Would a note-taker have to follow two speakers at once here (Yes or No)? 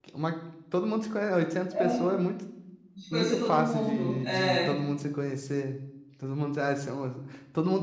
Yes